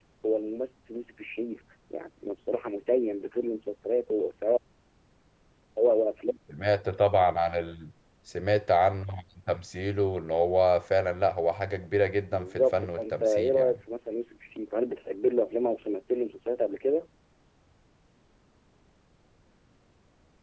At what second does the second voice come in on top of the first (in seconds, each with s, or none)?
12.3 s